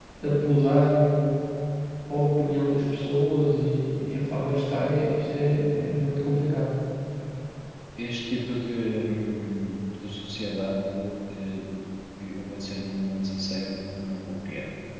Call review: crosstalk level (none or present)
none